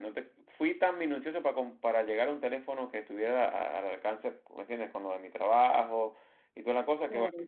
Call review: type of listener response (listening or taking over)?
listening